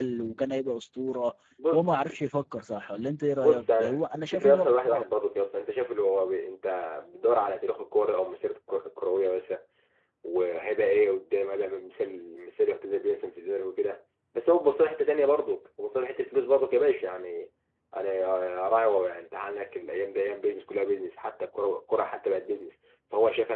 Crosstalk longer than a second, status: present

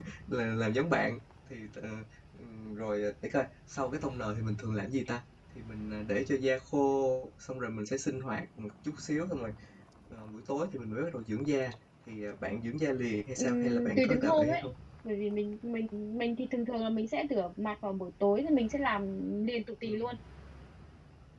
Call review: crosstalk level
present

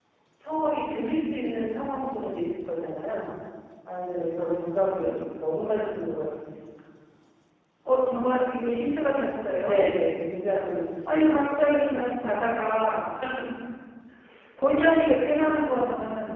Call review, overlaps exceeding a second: none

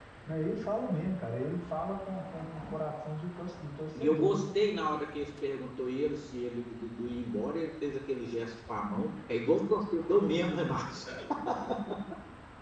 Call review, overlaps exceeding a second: none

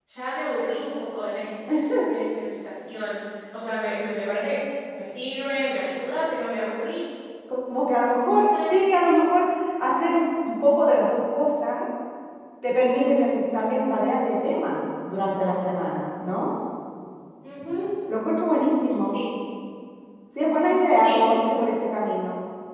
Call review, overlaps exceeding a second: none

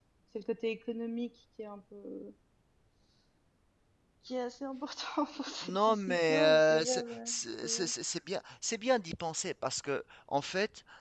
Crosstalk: present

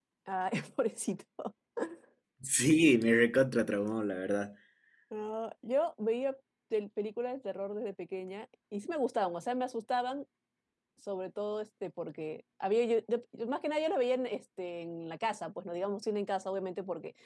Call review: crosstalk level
none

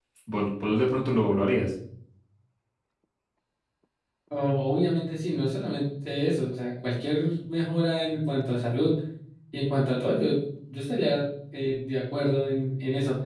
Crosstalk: none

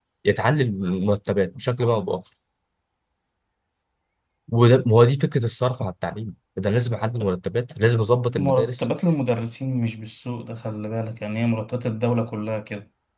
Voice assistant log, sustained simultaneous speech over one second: none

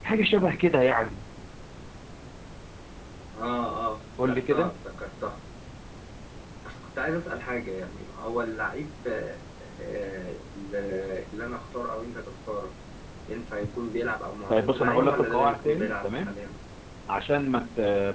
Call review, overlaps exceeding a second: present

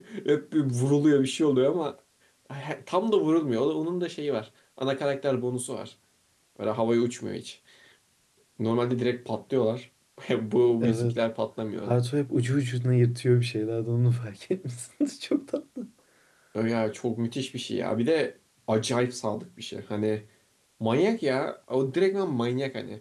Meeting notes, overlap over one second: none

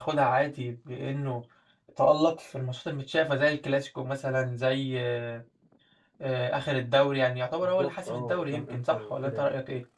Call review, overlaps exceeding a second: present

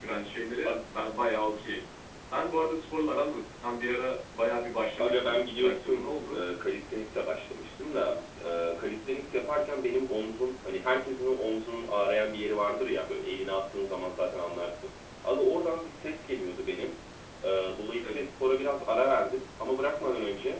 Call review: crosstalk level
present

